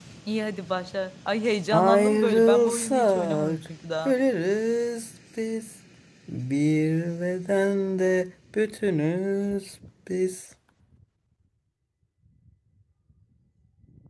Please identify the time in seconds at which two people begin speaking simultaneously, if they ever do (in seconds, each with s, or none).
1.7 s